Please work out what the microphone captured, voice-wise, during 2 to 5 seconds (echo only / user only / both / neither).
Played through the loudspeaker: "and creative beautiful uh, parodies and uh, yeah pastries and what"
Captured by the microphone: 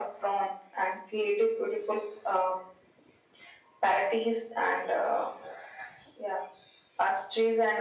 echo only